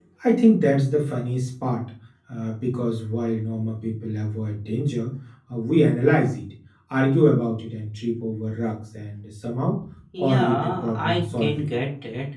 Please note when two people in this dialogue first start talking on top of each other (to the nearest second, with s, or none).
10 s